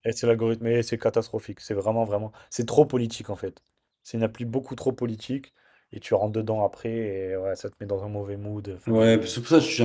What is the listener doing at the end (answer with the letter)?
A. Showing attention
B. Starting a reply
B